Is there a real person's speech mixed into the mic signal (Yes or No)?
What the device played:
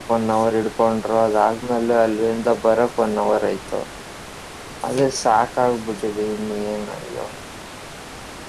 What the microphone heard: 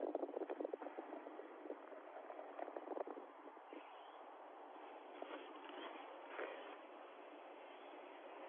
No